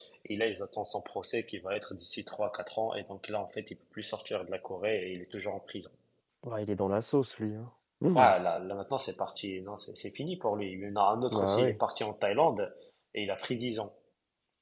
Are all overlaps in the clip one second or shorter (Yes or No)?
Yes